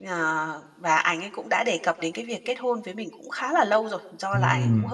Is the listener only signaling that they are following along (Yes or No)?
Yes